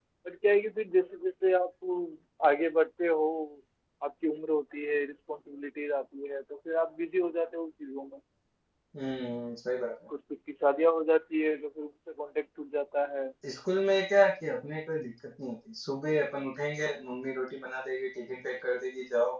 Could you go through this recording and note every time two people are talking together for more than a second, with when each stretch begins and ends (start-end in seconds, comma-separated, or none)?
none